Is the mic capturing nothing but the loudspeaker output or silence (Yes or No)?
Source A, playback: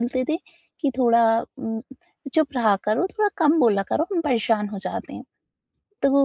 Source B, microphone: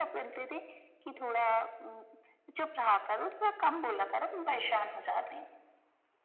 Yes